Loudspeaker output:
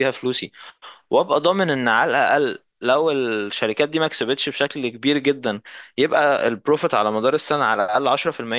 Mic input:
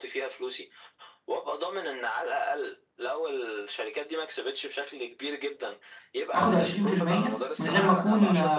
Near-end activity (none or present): present